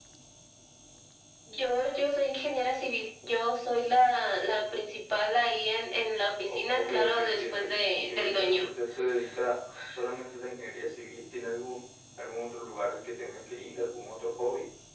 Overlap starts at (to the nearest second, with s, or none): 6 s